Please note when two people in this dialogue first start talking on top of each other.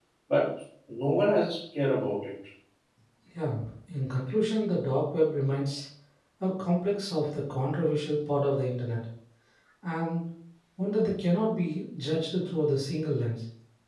none

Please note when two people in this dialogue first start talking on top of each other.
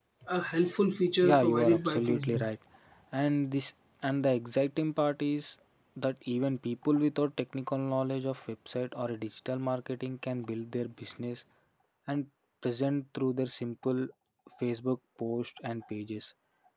1.2 s

